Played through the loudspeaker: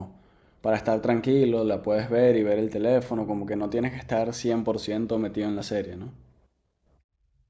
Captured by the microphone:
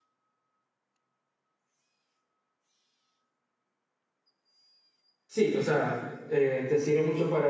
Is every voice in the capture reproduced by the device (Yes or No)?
No